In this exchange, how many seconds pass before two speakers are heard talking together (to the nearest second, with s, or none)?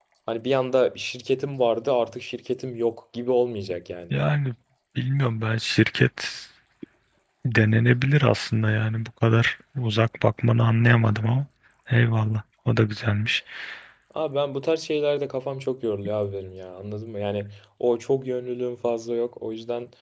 none